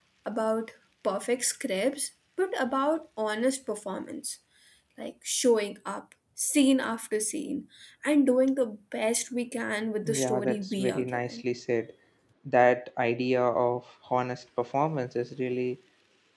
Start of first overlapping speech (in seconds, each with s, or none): 10.0 s